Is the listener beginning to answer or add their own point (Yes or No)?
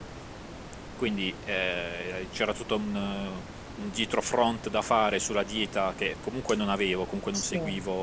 No